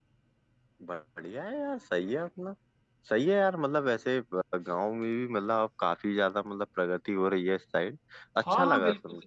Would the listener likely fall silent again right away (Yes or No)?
No